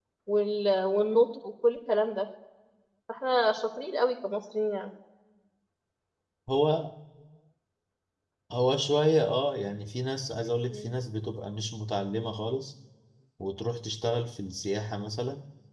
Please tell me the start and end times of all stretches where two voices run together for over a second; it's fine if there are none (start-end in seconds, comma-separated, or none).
none